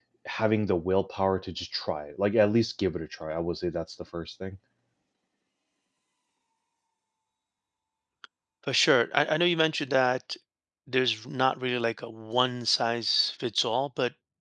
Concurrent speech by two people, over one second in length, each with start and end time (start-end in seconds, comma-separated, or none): none